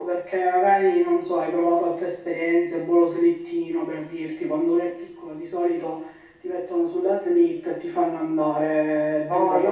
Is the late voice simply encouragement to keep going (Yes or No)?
No